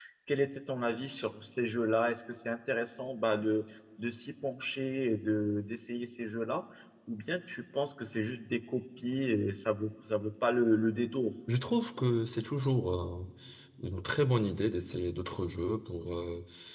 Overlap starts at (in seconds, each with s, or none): none